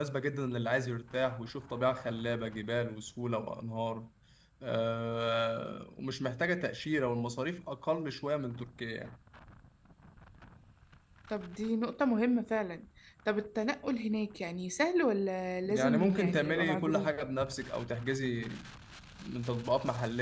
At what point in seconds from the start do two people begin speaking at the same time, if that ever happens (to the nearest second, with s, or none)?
16 s